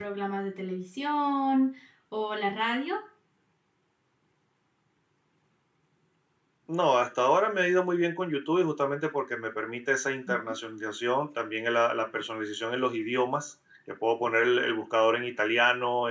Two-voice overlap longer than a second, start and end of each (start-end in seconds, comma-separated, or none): none